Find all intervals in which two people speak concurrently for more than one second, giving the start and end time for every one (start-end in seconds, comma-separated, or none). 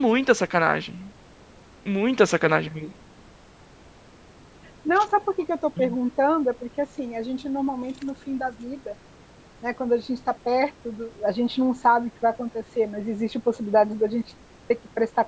none